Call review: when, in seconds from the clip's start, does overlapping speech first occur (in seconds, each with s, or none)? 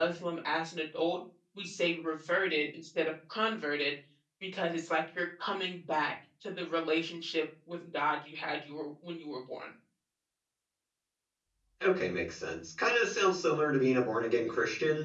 none